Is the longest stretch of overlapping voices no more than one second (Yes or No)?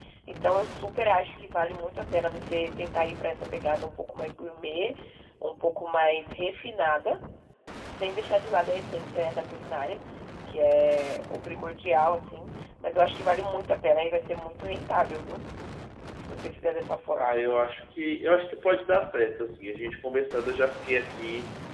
Yes